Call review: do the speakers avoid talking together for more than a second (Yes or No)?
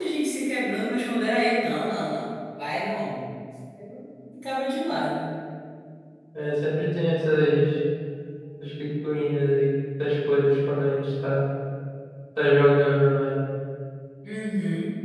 Yes